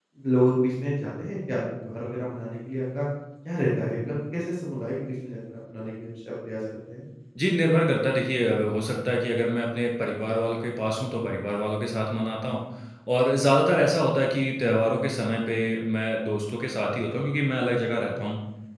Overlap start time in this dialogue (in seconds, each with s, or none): none